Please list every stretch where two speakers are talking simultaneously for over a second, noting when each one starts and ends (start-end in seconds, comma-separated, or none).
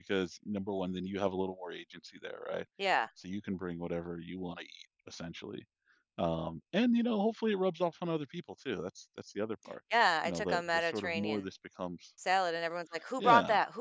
10.2-11.5